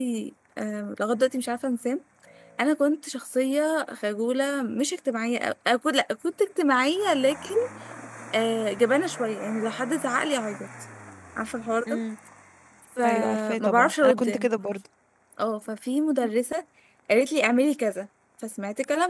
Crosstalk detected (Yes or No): Yes